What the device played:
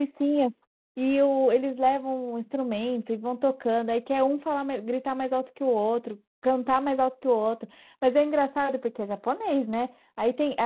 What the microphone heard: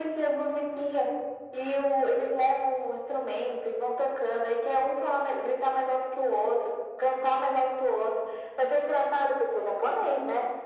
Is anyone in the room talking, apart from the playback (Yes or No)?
No